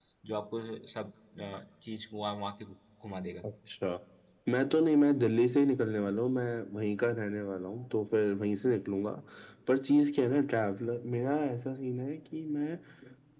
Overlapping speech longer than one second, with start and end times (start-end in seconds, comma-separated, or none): none